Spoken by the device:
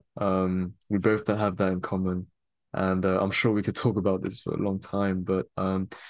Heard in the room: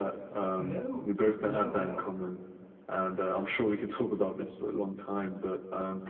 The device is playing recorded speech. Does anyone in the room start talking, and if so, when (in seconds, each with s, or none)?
0.6 s